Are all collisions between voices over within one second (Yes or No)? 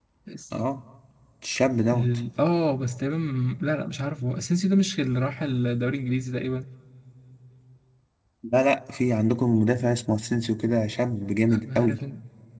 Yes